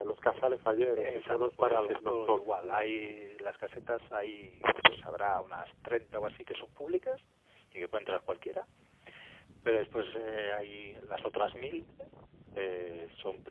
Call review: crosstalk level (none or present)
present